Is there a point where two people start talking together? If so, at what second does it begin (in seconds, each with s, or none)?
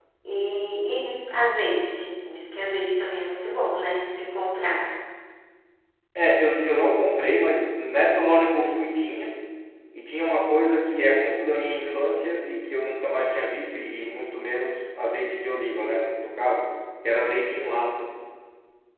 none